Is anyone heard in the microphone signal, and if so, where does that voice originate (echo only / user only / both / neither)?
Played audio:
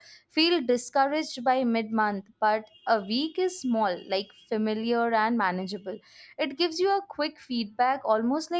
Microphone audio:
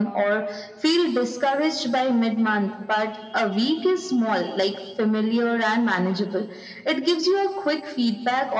echo only